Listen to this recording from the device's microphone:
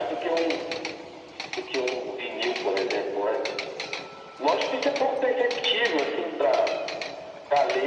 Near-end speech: none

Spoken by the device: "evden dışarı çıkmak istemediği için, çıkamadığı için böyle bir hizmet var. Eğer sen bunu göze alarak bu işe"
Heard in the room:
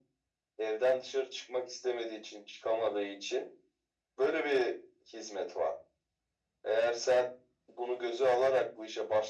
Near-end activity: none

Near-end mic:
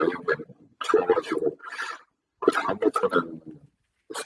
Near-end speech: none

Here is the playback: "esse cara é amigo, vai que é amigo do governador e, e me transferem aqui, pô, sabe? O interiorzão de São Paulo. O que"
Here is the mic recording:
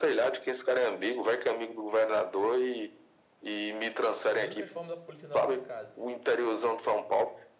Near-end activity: present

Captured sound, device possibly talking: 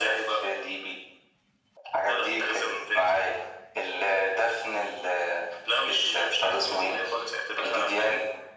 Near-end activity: none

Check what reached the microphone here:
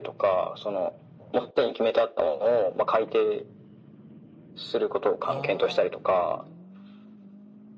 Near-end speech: present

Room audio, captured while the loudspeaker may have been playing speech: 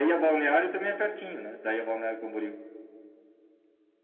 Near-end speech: none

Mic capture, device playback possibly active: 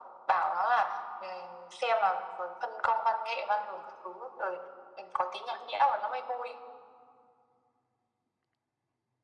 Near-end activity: none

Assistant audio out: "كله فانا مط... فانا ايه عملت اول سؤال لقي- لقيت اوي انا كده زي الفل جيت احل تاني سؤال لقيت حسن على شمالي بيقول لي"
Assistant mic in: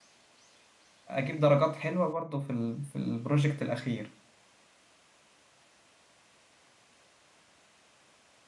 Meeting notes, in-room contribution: present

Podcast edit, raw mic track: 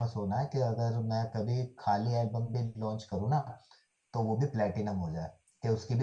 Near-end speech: present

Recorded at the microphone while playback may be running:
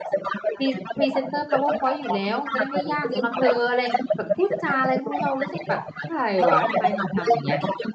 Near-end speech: present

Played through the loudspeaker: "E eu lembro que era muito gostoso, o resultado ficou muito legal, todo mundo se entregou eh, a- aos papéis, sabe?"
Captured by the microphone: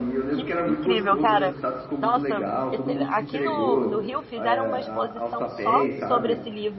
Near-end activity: present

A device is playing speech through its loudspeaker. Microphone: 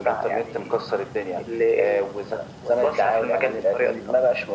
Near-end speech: none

